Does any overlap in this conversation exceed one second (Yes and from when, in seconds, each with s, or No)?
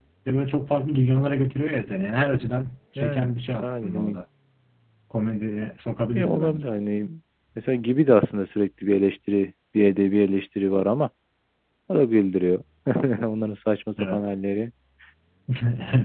No